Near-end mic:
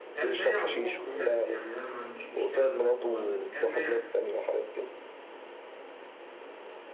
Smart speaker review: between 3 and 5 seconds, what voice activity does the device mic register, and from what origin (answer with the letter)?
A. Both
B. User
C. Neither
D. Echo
A